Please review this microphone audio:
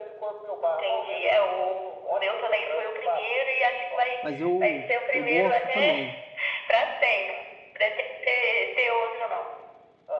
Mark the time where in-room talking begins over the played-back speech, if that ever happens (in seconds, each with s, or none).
4.2 s